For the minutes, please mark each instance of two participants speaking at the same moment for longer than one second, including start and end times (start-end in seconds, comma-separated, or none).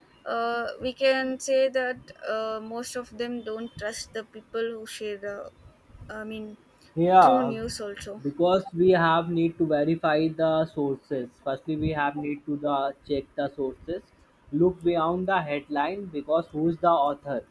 none